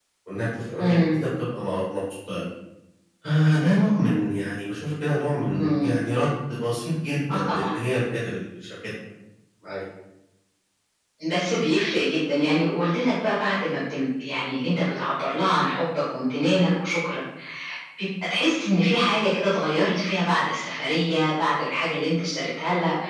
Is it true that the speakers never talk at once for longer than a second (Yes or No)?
Yes